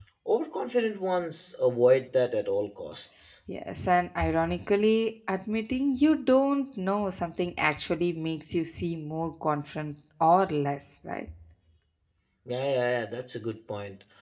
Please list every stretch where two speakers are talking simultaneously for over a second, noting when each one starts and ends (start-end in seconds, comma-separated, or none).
none